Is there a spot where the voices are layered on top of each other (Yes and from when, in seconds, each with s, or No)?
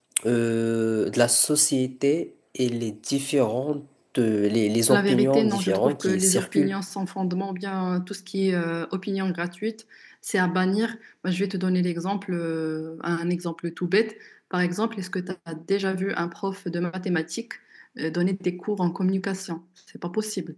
Yes, from 4.9 s